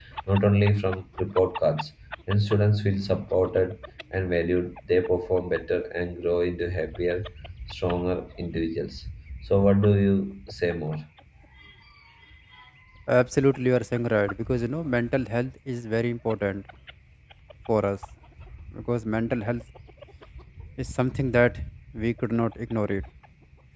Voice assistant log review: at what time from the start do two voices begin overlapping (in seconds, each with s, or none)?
none